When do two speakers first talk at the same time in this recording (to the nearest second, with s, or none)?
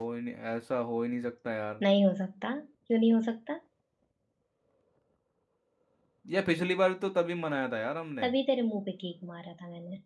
none